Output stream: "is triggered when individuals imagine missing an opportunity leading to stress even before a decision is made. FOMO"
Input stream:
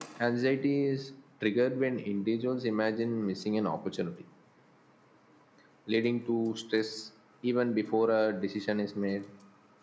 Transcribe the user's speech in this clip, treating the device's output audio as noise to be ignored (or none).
none